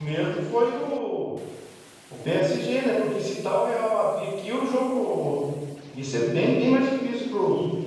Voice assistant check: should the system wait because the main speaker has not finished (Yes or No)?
No